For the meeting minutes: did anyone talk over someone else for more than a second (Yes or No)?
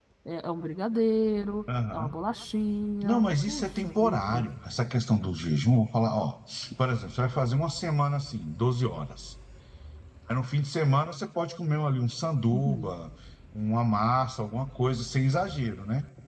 Yes